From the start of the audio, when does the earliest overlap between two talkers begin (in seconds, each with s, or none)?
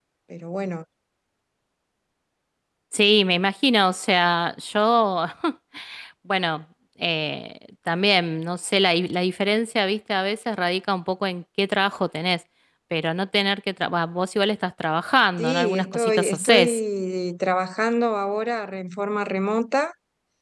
15.4 s